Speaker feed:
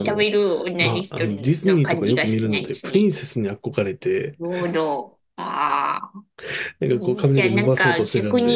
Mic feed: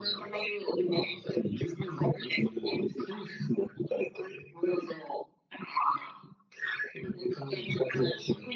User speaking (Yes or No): No